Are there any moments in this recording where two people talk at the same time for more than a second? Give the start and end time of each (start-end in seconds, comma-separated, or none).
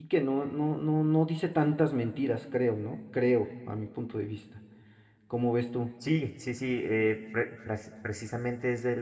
none